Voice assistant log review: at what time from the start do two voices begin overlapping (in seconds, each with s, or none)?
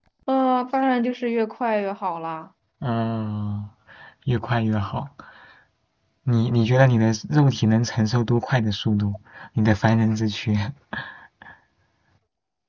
none